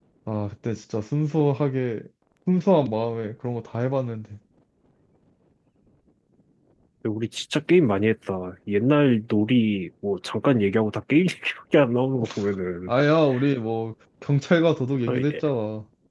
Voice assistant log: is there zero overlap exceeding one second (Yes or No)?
Yes